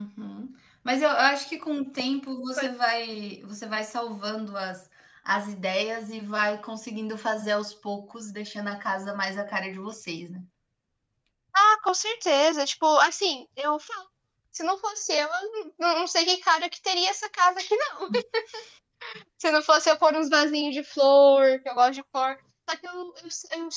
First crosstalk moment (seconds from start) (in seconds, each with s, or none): none